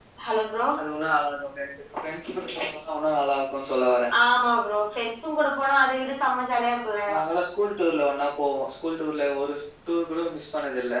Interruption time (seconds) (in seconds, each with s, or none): none